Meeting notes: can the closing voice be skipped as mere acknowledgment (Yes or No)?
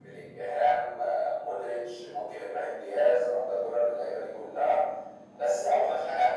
Yes